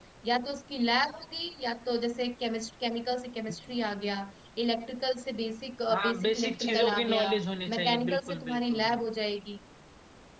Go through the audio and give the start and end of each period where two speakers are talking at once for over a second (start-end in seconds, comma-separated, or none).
5.9-7.3, 7.8-9.0